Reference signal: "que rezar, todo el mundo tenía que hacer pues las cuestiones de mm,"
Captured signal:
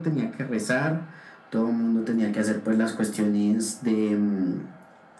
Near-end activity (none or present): none